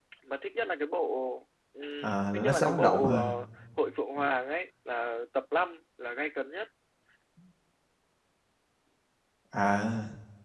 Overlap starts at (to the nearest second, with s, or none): 2 s